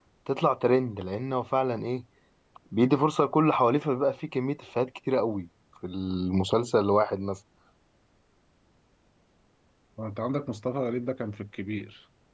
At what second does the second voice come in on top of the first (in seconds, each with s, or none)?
none